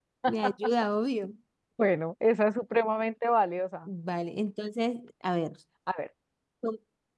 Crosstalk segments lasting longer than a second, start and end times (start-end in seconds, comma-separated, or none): none